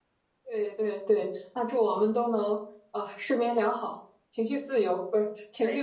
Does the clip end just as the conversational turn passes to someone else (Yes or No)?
Yes